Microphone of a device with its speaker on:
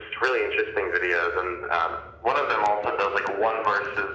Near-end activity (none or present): none